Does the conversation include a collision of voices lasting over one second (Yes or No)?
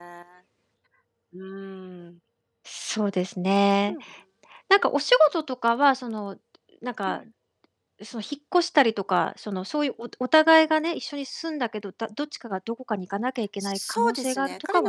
Yes